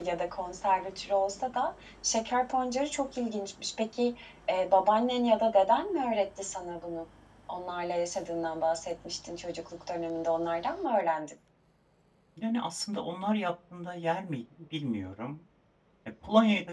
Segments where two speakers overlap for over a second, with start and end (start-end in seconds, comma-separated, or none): none